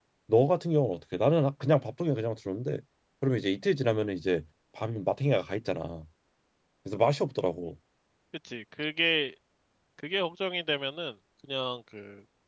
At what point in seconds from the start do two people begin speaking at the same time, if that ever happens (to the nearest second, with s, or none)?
none